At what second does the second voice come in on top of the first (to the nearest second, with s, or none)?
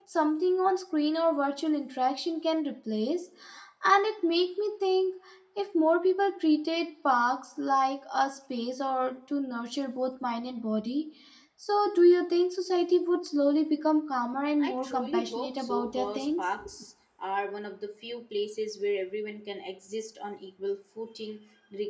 15 s